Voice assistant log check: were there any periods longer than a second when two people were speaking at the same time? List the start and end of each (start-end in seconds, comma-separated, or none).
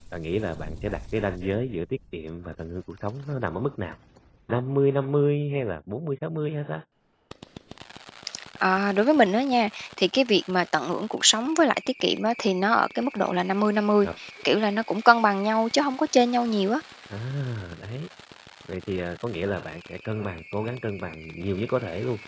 none